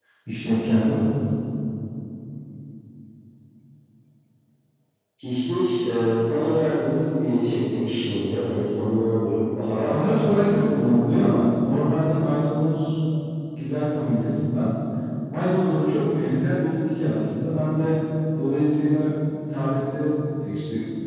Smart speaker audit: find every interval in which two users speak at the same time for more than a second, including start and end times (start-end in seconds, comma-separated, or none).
9.9-11.3